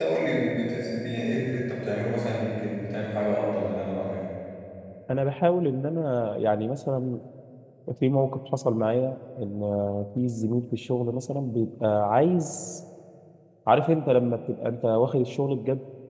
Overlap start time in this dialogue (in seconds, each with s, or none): none